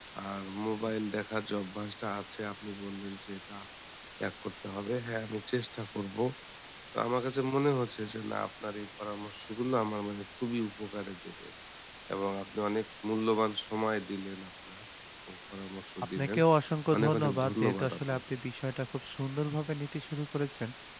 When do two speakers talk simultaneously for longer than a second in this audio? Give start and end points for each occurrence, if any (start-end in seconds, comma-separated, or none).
17.0-18.2